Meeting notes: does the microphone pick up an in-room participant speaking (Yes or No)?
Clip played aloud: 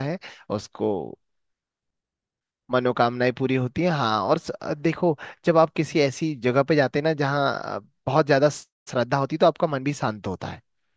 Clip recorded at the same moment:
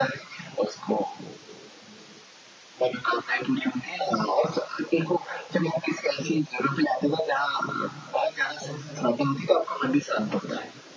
No